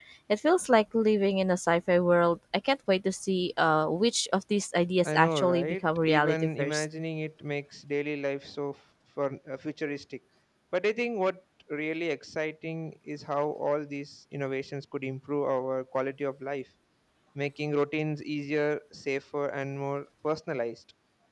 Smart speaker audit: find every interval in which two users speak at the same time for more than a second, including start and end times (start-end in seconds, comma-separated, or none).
5.0-6.8